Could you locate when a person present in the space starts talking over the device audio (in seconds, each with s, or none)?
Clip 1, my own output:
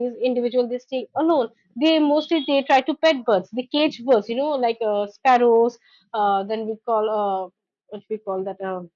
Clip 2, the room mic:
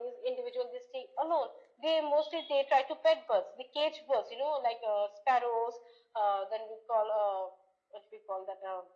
none